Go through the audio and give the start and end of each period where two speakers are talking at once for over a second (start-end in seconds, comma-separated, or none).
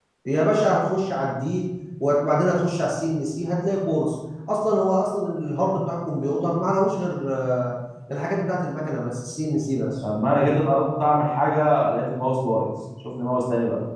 none